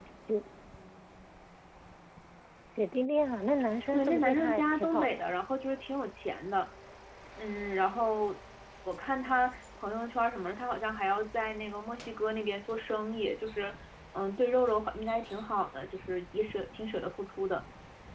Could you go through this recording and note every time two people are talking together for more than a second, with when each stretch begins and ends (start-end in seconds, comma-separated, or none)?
3.9-5.2